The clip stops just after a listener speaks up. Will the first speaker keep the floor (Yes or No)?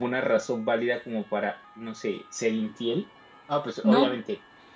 Yes